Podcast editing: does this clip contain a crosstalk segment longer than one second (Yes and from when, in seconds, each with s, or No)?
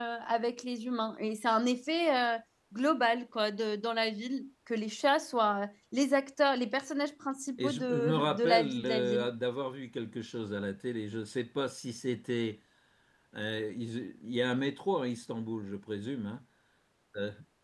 Yes, from 7.6 s